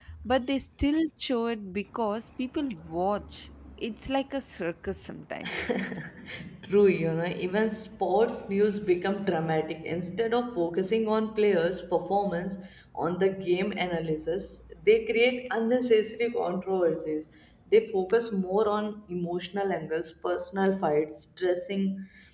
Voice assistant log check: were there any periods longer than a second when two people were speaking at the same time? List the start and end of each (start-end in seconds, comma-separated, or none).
none